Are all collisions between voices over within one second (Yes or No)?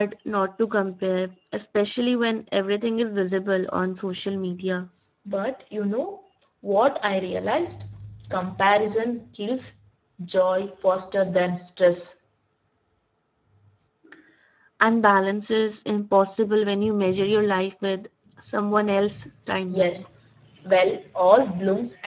Yes